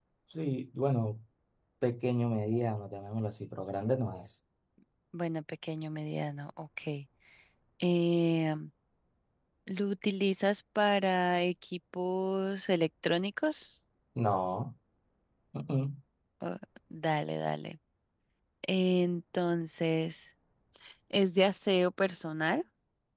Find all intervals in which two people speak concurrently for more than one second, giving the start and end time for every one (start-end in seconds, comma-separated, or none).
none